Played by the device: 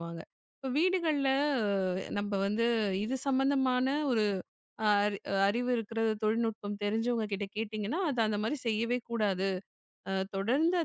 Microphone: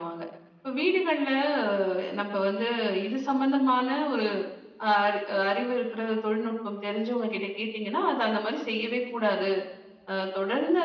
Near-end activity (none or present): none